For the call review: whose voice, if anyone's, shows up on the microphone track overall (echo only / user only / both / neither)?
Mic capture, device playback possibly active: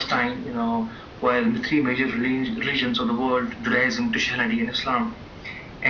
echo only